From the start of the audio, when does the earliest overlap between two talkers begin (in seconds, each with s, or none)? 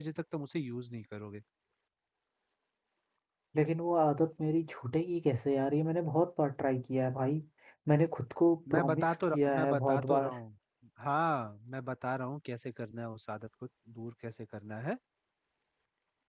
8.7 s